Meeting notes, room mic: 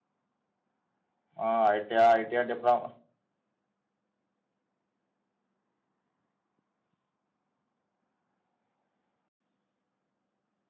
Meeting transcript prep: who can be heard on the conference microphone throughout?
user only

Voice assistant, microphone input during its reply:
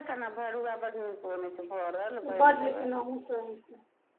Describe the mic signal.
both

